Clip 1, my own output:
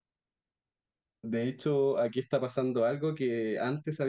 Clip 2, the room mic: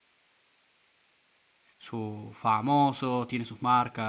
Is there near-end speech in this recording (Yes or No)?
Yes